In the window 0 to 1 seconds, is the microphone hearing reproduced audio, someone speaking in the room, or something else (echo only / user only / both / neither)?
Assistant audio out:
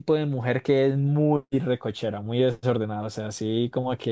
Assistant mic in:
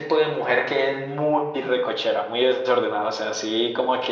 echo only